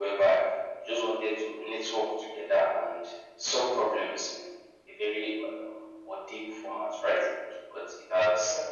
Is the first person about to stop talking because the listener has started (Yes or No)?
No